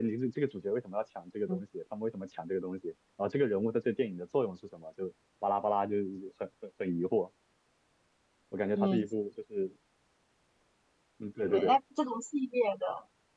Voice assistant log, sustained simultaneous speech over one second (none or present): none